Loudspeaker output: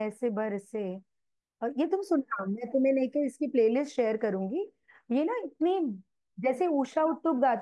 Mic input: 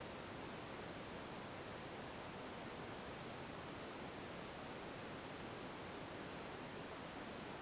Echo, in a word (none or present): none